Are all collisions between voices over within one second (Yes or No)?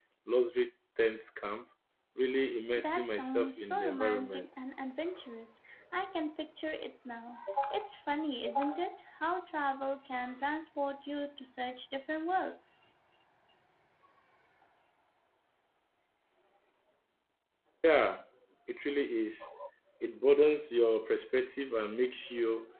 No